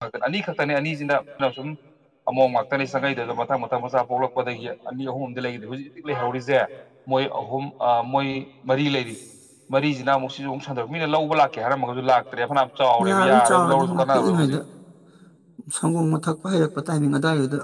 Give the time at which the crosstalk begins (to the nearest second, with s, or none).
13 s